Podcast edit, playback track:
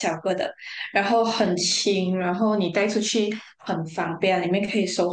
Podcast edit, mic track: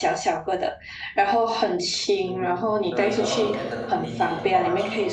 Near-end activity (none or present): present